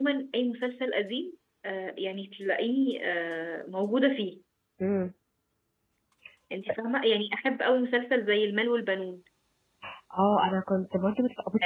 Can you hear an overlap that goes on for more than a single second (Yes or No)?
No